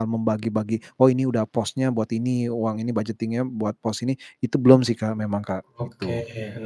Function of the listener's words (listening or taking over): taking over